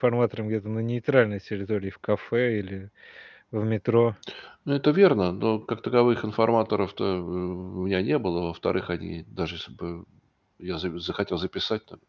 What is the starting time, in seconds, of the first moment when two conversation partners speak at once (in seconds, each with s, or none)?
none